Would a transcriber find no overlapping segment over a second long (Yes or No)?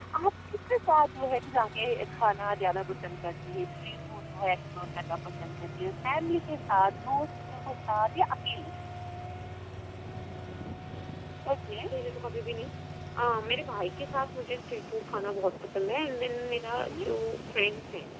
Yes